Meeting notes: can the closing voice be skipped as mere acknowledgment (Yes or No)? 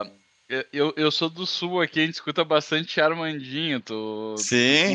No